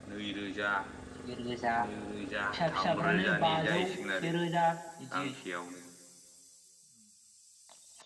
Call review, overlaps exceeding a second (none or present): present